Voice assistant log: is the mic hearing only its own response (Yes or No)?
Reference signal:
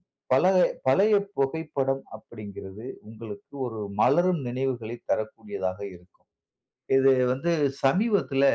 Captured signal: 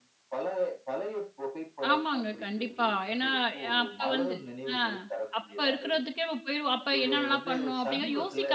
No